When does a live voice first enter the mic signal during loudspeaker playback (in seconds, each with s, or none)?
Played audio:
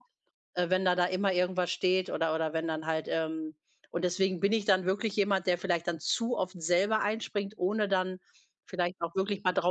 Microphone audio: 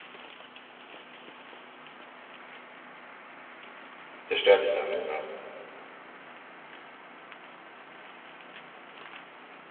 4.3 s